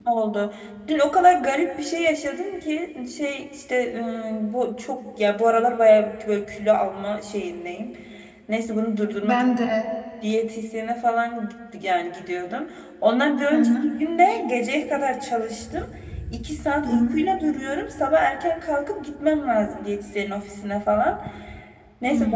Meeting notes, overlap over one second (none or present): none